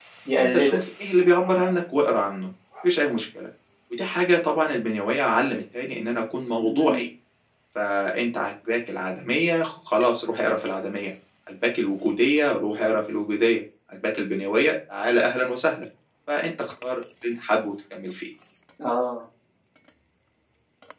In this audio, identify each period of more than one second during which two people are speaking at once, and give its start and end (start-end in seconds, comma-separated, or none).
none